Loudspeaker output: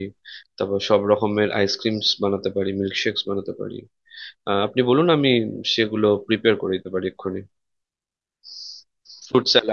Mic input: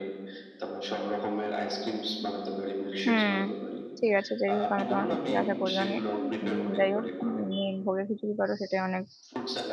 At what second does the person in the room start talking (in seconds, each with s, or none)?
3.0 s